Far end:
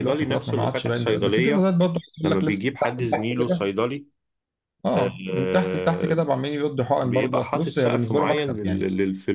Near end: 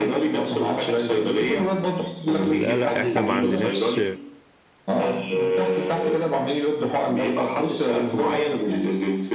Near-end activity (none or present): present